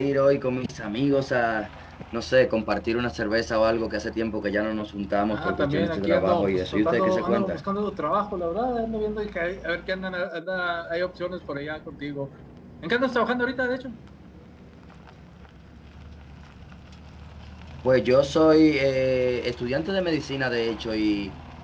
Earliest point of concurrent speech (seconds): 5.3 s

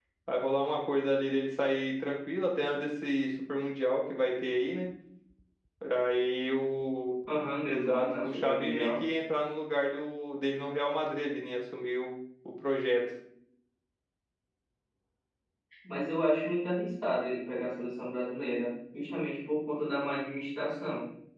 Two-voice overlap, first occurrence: 7.6 s

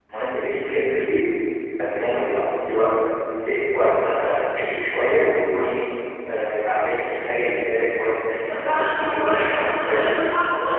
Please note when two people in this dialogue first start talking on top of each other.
8.5 s

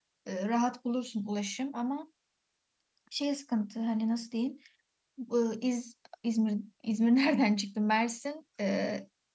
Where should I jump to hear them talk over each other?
none

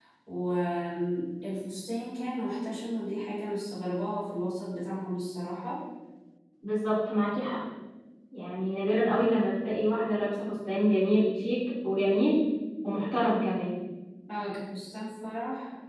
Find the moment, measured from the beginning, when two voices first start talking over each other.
none

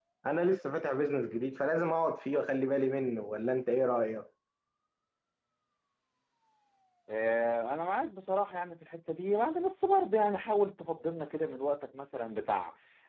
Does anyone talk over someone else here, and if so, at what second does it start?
none

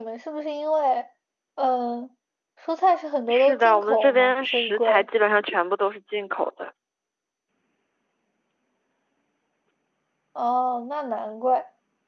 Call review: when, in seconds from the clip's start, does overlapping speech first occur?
3.3 s

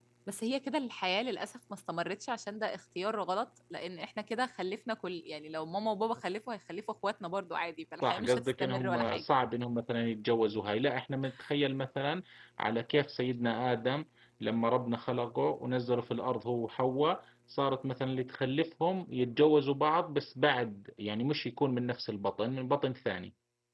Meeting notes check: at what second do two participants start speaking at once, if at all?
8.0 s

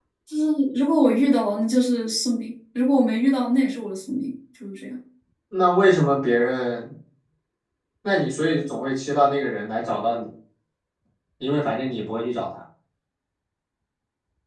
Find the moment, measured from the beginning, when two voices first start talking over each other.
none

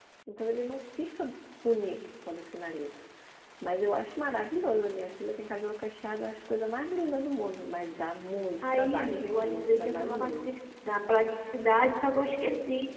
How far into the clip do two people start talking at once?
8.6 s

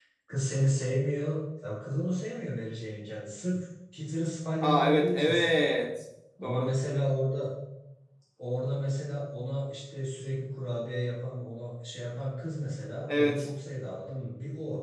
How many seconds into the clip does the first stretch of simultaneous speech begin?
4.6 s

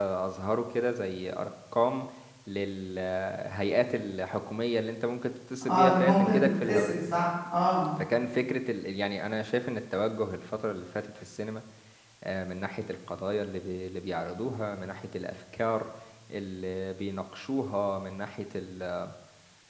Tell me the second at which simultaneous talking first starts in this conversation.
5.6 s

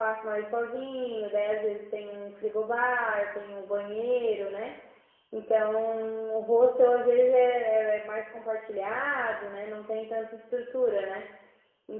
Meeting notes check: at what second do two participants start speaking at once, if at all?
none

